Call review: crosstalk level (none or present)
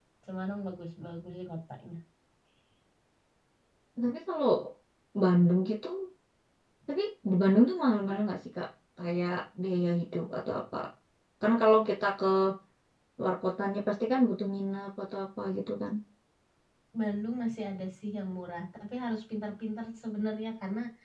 none